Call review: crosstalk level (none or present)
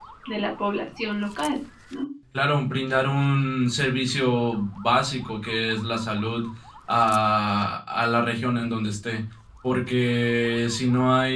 none